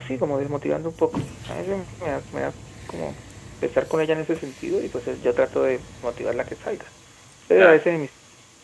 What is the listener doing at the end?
listening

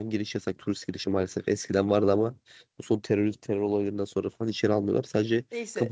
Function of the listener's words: taking over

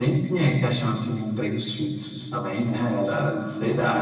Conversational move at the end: listening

